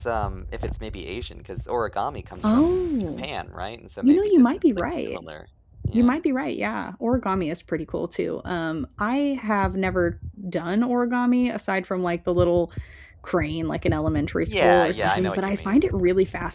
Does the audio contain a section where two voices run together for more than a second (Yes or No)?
Yes